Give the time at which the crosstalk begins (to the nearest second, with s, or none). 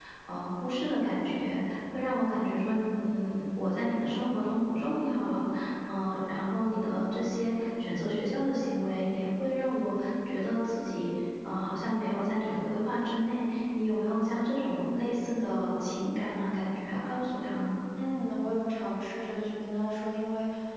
none